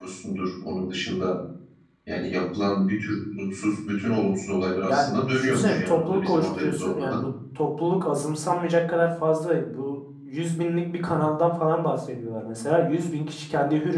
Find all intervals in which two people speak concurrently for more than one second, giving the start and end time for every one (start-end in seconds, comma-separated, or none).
4.8-7.2